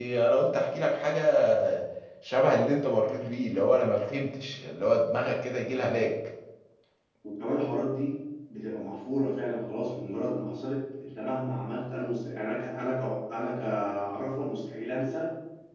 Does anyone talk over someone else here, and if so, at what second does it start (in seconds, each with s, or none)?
none